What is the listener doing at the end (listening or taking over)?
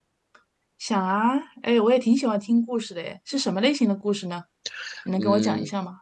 taking over